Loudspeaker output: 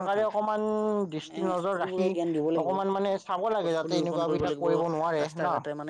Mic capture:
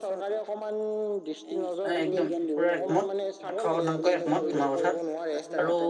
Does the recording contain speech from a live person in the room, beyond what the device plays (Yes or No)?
Yes